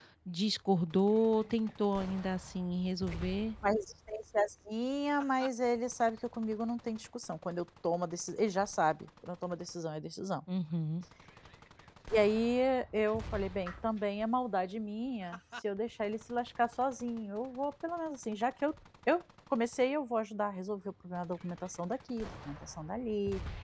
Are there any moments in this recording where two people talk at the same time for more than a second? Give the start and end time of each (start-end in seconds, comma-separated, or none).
none